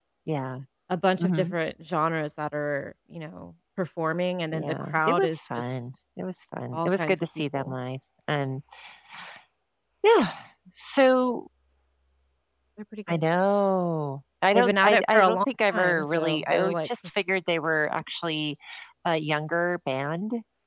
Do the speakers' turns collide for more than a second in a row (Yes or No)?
Yes